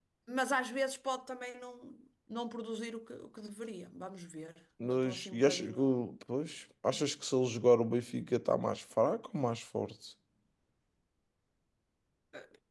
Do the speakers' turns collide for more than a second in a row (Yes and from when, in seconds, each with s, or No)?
Yes, from 4.8 s